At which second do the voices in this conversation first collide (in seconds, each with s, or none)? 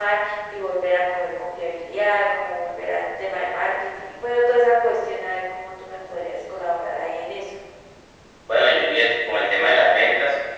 none